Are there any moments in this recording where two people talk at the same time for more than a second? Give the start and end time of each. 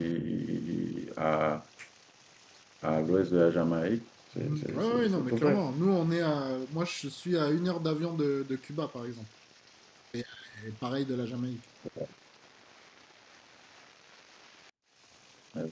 4.4-5.6

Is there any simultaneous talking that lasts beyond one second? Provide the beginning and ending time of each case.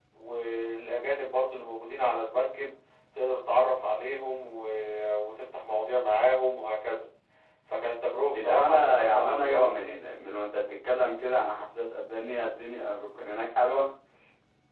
8.3-10.0

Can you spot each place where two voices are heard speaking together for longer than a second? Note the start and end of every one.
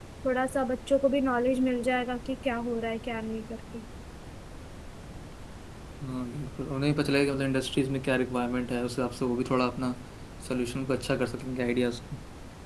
none

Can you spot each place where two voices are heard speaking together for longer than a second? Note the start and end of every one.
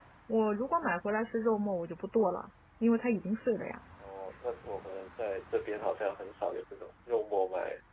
none

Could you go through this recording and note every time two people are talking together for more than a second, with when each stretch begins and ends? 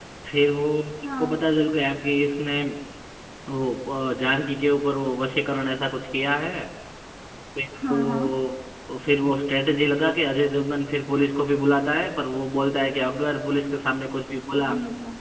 none

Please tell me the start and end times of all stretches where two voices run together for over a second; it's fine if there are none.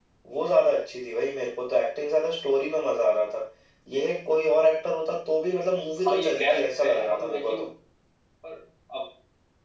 6.0-7.6

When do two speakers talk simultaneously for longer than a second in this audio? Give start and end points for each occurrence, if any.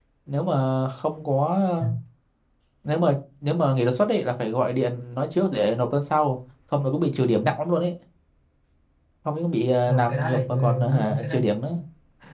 9.9-11.4

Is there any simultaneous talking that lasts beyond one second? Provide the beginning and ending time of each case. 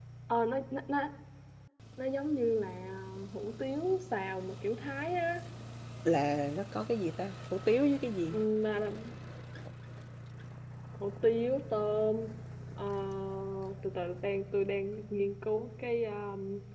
none

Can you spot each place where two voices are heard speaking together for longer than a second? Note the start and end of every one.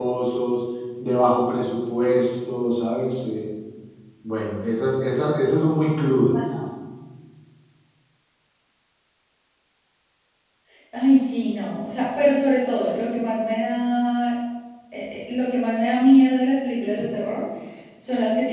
none

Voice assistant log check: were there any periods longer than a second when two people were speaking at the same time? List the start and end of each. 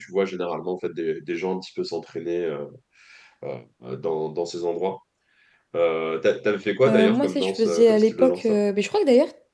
6.9-8.6

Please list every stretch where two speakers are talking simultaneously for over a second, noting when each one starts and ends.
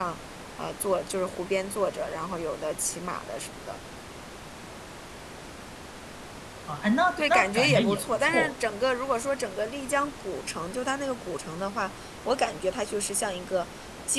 7.2-8.6

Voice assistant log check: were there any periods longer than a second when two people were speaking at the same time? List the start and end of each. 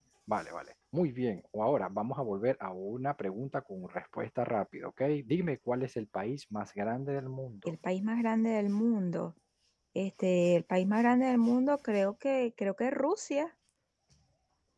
none

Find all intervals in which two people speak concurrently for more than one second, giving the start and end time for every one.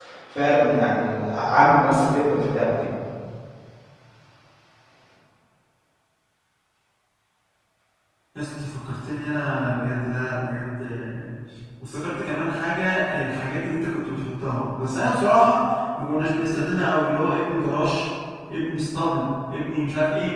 none

